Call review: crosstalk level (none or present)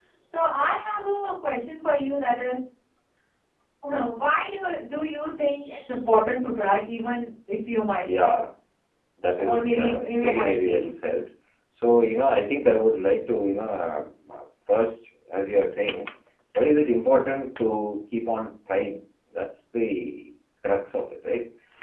present